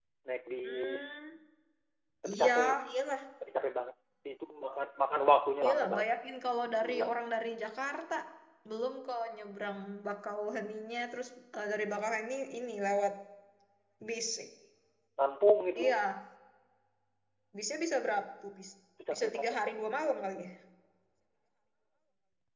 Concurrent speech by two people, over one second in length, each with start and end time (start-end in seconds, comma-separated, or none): none